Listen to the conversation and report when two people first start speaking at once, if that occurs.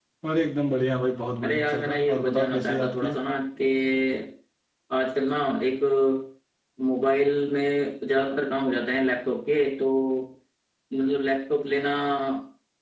1.4 s

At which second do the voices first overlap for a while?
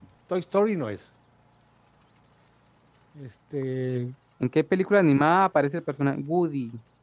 none

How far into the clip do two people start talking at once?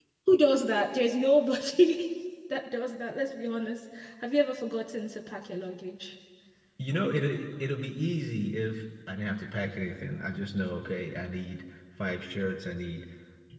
none

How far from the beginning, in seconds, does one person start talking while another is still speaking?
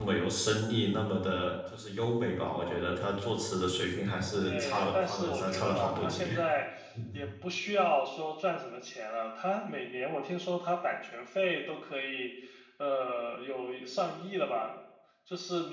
4.4 s

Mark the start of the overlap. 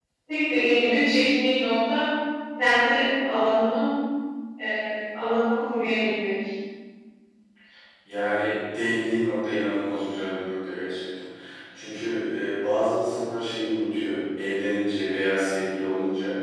none

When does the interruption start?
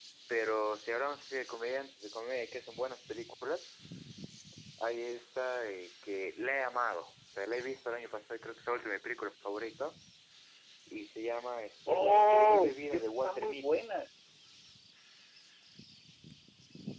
11.9 s

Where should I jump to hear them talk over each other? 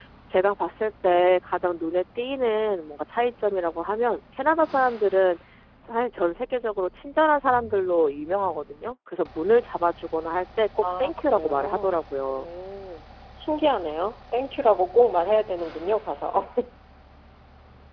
10.8 s

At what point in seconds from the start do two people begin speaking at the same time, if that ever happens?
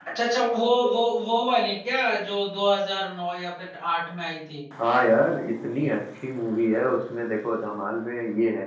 none

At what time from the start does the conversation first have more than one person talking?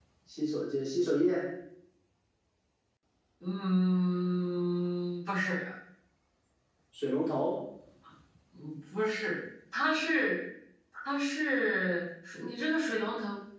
none

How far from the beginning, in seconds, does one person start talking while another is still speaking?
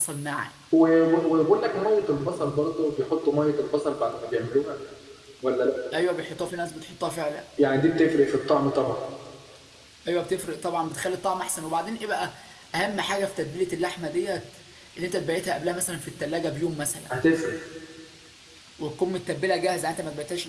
none

